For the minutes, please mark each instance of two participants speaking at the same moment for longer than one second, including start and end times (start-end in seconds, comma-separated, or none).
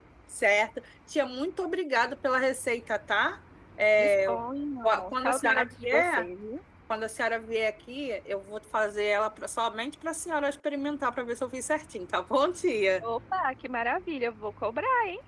4.8-6.3